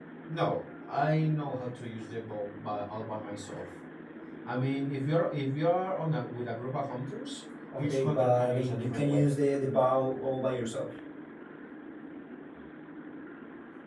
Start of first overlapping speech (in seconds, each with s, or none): 7.7 s